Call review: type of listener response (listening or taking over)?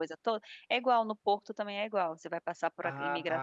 taking over